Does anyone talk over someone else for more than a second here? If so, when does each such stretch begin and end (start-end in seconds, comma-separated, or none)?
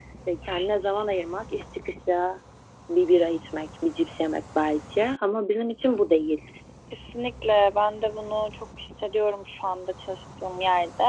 none